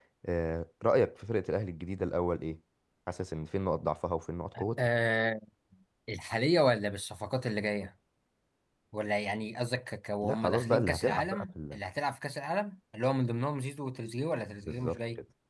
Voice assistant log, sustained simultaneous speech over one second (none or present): present